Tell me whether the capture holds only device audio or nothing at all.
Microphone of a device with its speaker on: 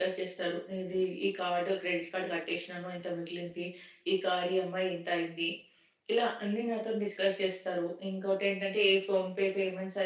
Yes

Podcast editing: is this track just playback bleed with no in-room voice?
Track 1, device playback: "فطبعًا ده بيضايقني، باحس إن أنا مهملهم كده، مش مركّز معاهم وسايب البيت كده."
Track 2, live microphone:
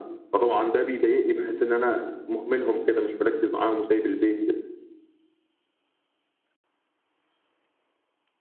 Yes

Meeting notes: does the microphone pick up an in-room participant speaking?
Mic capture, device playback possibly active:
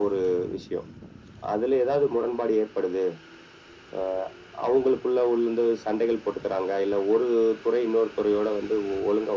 No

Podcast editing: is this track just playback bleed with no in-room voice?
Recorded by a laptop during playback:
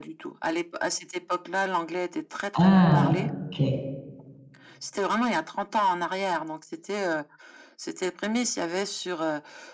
No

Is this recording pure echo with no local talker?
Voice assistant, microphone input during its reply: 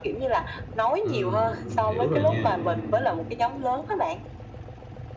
No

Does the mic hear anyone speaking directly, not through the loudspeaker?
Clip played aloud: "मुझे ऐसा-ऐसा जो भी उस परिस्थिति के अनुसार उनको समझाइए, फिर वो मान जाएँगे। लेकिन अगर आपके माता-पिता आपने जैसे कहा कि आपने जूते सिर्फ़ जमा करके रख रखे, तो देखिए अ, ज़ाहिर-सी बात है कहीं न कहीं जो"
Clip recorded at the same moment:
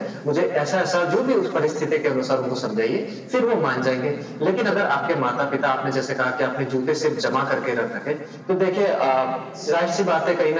No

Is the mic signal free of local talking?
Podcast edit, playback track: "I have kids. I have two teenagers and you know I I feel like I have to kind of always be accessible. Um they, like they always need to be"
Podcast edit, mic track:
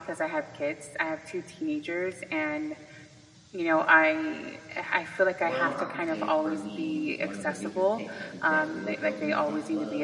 No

